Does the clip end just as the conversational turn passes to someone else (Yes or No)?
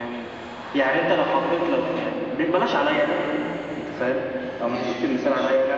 No